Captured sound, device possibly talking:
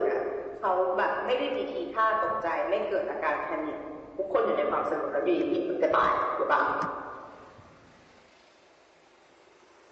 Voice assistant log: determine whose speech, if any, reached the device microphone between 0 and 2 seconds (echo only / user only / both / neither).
echo only